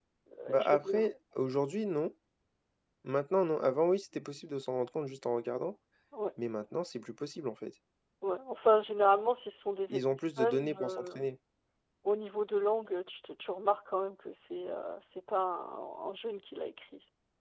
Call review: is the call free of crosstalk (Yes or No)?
No